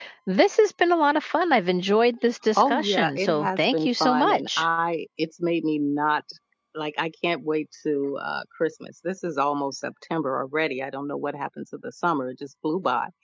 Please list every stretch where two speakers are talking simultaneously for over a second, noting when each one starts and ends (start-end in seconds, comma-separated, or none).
2.5-4.6